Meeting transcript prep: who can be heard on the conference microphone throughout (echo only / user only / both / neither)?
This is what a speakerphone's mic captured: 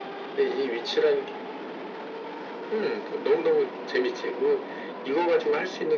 echo only